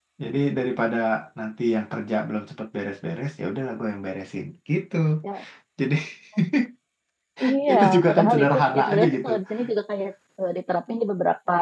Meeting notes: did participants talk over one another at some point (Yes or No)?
Yes